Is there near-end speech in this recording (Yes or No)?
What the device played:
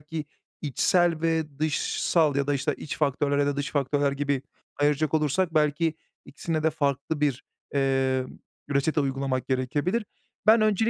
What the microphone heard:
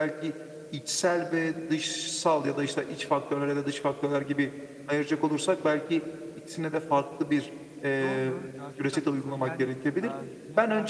Yes